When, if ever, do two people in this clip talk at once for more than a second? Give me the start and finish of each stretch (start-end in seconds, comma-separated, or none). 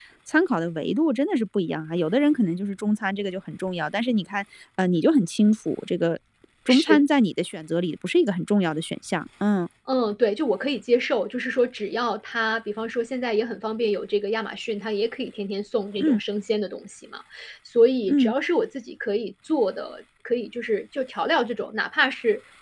none